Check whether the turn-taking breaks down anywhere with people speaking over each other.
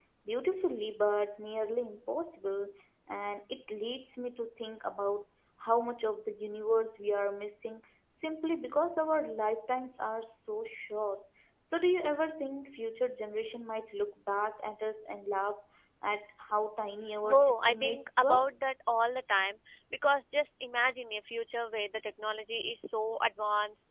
Yes, from 17.2 s

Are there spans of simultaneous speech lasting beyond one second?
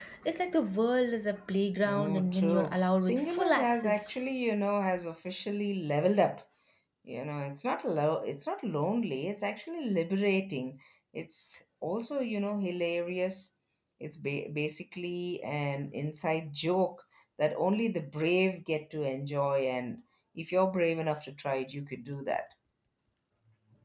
Yes, from 1.8 s

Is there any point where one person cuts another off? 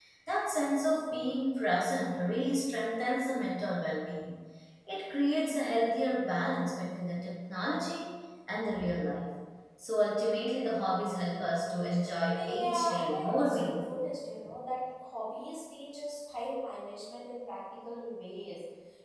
Yes, from 12.3 s

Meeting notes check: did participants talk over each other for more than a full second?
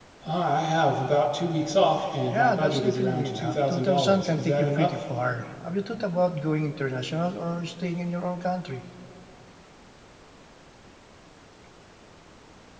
Yes, from 2.3 s

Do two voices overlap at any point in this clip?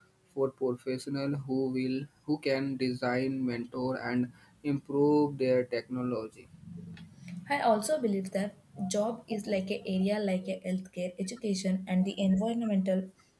No

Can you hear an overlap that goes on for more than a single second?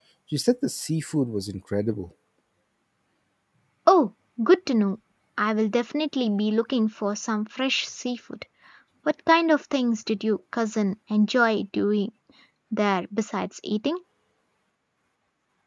No

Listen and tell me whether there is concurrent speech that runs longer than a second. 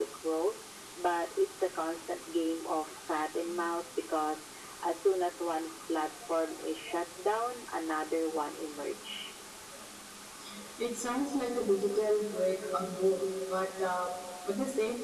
No

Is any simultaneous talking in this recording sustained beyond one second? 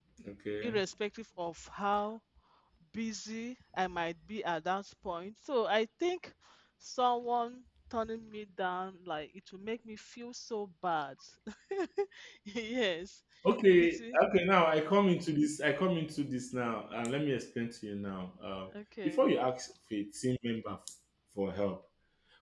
No

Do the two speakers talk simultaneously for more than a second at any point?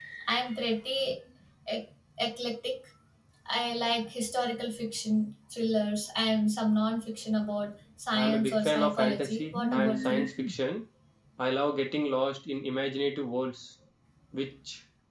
Yes, from 8.1 s

